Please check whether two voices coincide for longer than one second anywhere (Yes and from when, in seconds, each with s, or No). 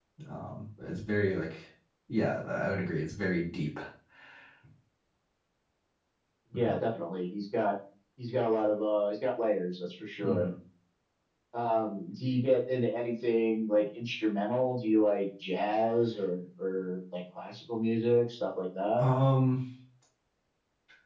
No